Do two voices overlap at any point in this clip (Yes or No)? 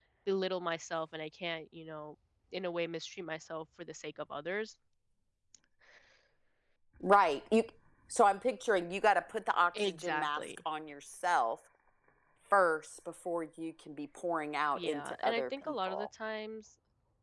Yes